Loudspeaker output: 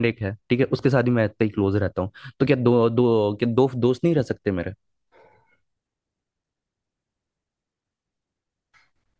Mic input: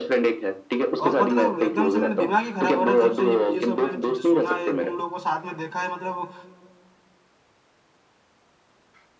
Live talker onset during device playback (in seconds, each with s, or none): 1.1 s